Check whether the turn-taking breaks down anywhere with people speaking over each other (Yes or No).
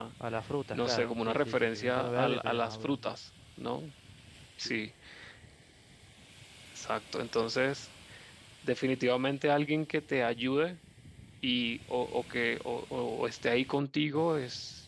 Yes